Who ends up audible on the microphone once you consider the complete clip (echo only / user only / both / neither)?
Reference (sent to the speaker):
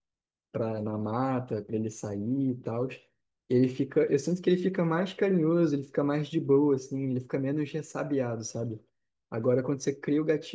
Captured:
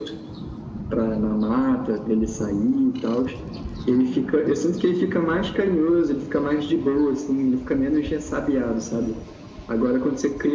echo only